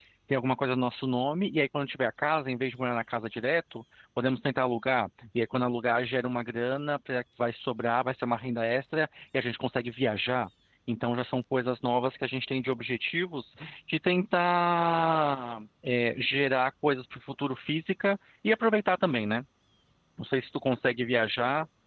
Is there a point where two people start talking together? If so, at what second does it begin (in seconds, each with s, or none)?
none